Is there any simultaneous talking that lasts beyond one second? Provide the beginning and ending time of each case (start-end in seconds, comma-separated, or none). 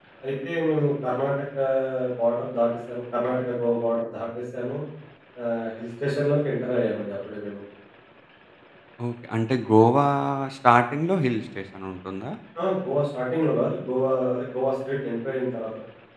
none